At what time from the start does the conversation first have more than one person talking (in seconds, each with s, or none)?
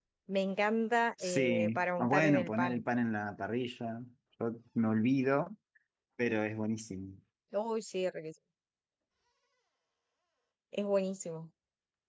1.2 s